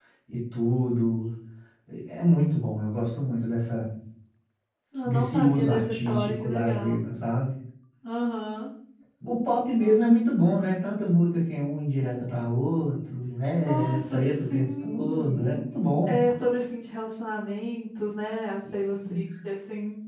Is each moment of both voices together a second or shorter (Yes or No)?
No